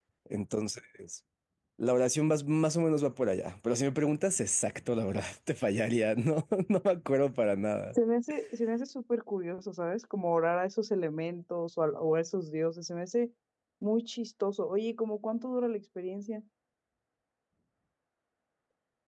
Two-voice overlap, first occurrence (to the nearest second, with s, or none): none